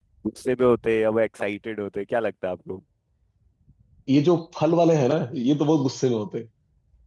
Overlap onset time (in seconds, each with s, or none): none